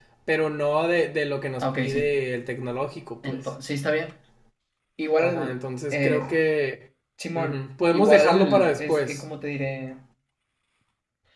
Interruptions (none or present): present